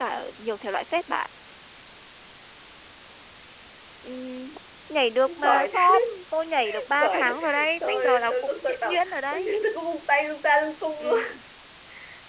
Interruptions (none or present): present